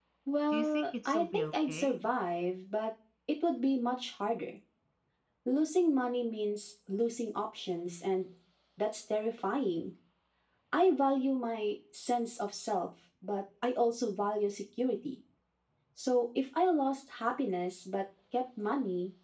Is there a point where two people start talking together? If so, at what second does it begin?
0.5 s

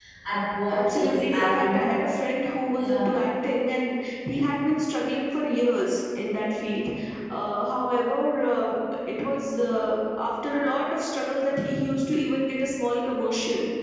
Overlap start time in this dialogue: 0.7 s

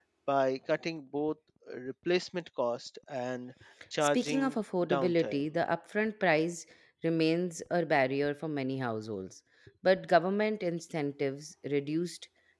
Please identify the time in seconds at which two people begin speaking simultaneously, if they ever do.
4.1 s

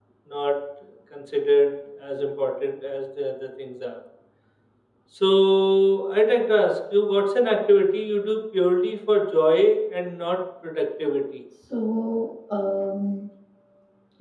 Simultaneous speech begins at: none

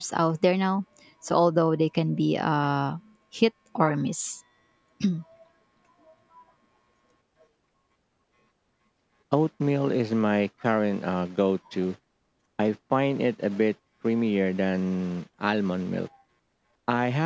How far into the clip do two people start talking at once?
none

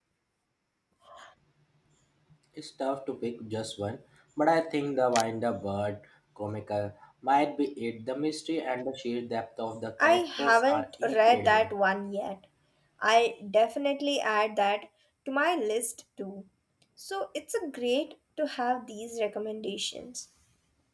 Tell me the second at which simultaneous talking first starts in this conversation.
10.0 s

